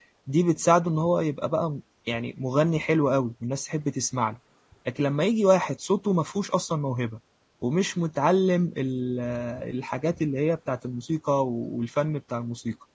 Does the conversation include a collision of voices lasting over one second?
No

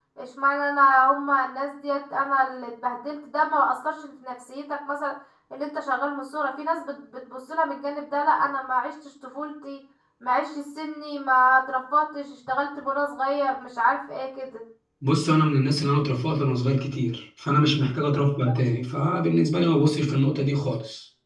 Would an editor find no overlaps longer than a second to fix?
Yes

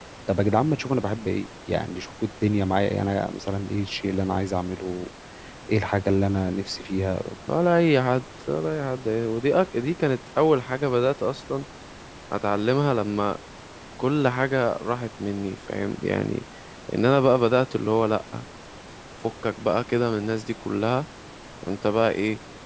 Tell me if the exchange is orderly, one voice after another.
Yes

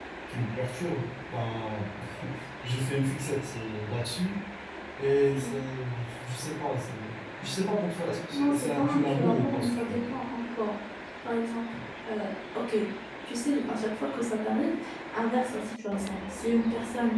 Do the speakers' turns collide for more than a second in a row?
Yes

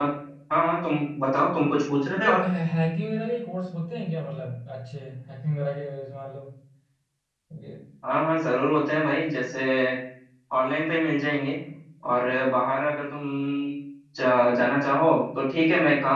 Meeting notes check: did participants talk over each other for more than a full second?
No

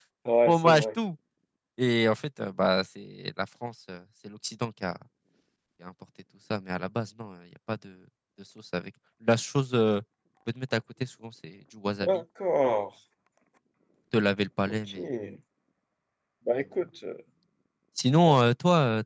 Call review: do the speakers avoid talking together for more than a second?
Yes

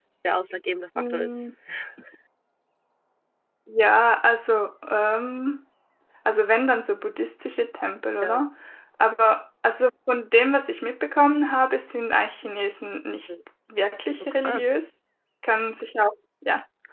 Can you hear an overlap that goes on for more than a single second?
No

